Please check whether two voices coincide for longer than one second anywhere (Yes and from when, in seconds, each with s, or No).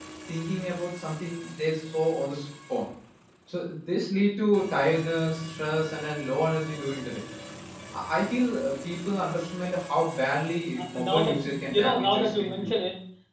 Yes, from 10.8 s